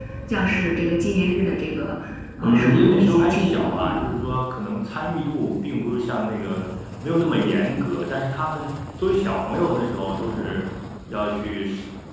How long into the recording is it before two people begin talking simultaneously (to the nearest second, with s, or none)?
2 s